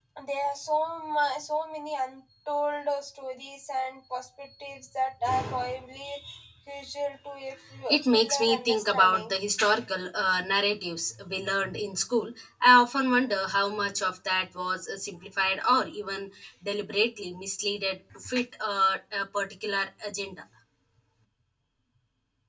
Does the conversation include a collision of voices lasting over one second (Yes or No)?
Yes